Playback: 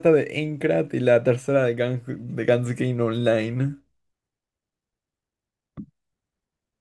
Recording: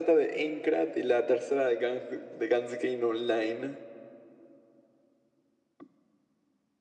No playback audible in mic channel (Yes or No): No